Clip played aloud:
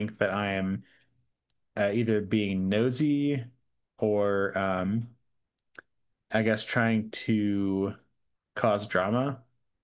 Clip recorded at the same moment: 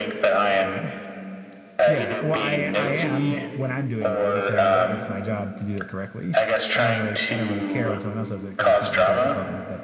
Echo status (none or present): present